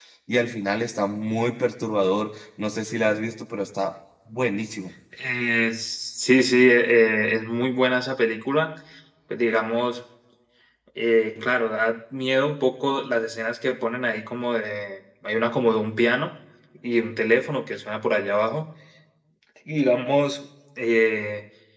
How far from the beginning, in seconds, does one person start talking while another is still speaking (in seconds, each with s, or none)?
none